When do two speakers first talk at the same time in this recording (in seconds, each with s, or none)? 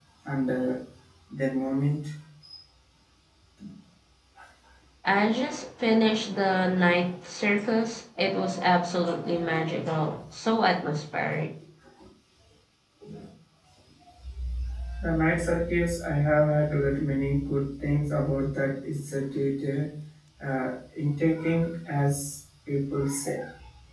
none